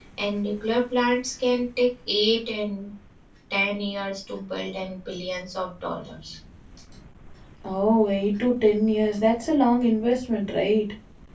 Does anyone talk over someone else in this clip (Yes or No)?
No